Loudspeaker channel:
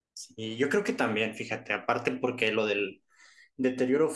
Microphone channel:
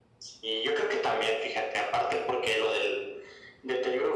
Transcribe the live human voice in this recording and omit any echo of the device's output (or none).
none